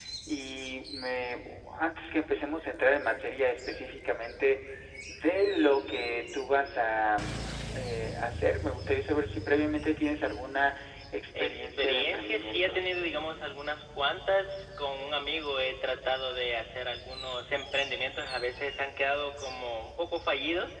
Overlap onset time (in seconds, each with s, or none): 11.4 s